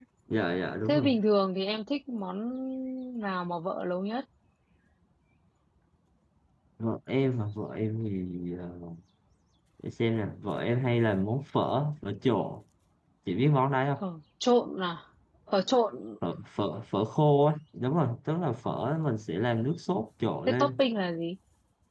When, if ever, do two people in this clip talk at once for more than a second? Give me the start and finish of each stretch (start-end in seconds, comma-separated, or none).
none